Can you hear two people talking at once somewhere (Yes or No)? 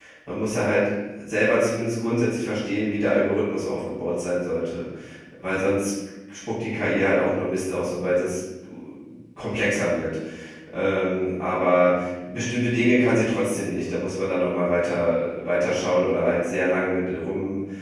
No